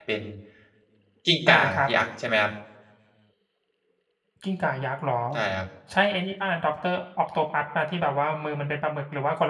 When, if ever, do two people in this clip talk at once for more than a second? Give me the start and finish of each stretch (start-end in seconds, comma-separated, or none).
none